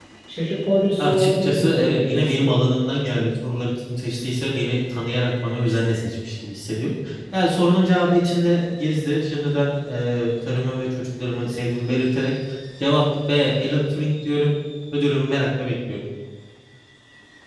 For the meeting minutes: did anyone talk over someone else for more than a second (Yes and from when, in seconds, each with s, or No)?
Yes, from 1.0 s